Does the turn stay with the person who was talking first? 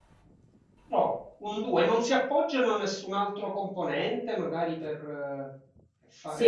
No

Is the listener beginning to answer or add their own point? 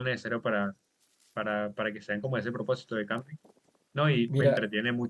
No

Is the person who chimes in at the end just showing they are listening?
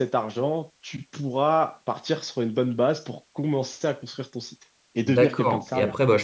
No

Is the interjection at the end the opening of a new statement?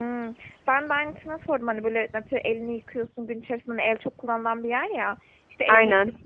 No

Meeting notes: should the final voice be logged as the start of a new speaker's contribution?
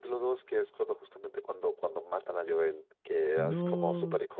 No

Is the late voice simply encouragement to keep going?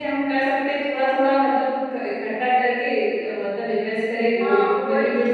No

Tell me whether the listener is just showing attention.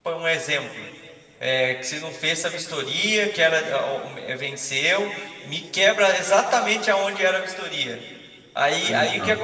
Yes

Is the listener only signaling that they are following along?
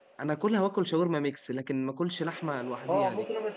No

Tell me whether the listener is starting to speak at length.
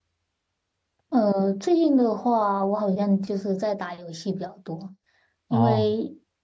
No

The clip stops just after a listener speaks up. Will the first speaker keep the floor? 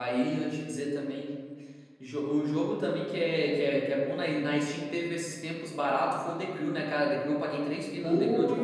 No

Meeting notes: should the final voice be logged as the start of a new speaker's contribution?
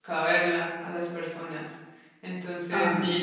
No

